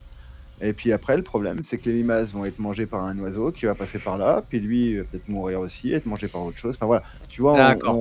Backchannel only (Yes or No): No